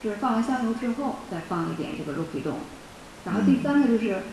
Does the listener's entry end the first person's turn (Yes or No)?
No